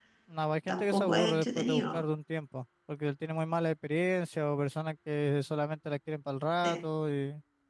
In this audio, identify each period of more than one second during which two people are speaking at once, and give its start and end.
0.7-2.0

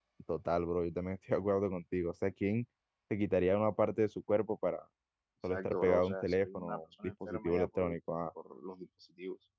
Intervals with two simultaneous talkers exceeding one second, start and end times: 5.5-8.0

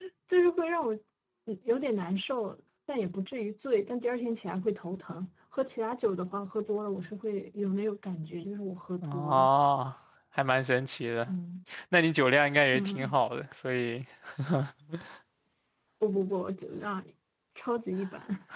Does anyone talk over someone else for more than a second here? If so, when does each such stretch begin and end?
none

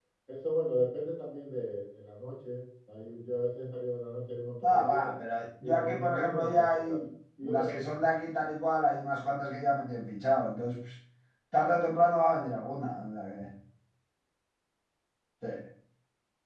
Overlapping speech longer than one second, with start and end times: 5.6-7.0

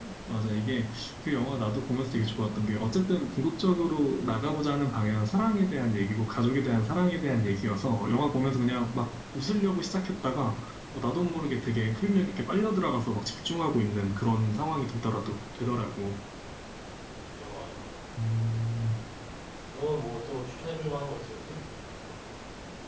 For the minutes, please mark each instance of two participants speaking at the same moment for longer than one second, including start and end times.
none

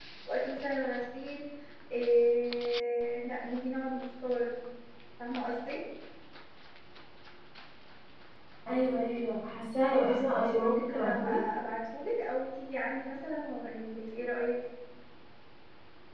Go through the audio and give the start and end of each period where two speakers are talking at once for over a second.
9.9-11.4

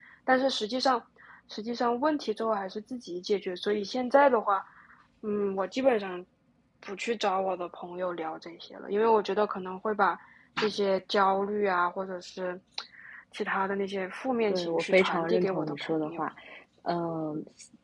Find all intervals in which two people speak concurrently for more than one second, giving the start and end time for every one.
14.5-16.2

